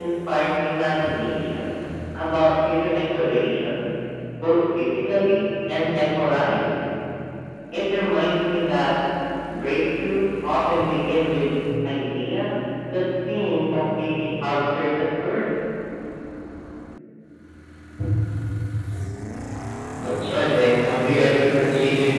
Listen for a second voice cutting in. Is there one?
No

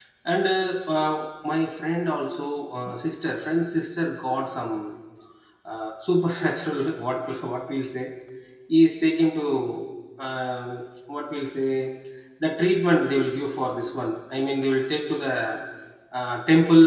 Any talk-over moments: No

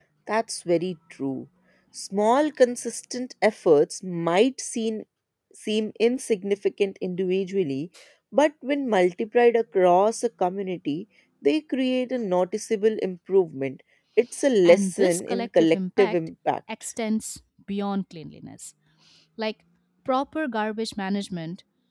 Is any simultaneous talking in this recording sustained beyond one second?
Yes, from 14.6 s

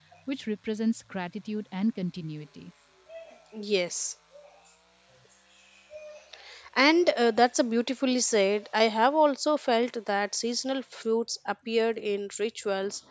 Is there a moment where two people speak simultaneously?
No

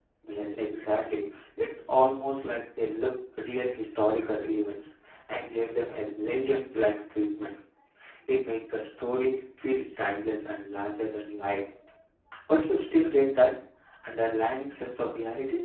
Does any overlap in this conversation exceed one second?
No

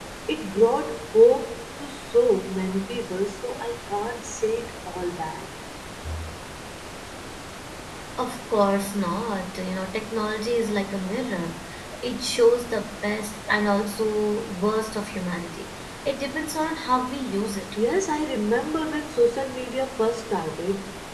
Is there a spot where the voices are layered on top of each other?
No

